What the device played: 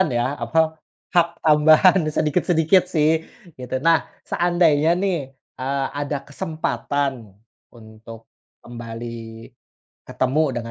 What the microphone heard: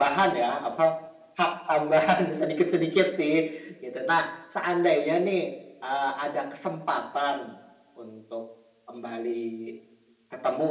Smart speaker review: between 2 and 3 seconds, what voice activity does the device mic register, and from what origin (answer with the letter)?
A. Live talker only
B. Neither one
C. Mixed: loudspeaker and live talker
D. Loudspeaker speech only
D